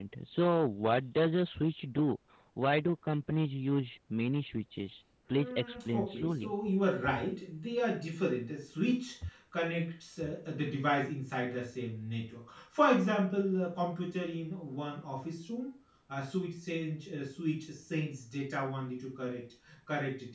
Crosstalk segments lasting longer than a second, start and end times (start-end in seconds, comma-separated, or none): 5.3-6.5